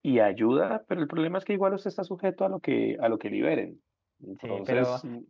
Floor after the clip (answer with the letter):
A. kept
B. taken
B